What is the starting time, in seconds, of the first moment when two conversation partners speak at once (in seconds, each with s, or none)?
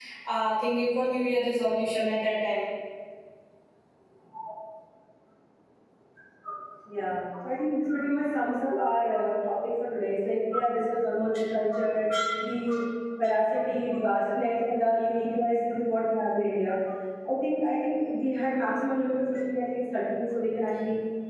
none